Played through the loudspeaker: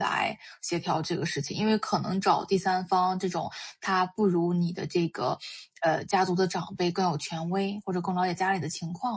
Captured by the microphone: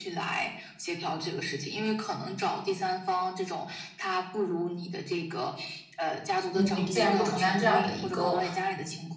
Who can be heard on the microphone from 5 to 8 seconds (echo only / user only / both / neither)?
both